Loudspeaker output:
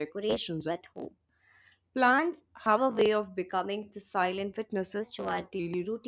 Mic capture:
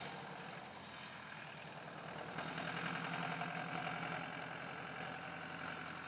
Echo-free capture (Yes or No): Yes